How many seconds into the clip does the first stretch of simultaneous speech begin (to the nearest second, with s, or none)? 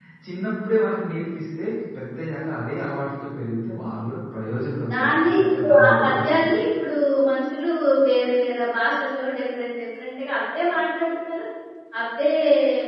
5 s